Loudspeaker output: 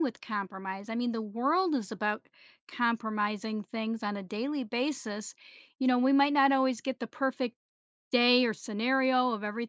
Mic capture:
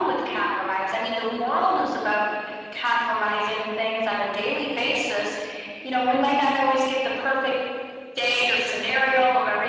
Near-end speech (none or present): none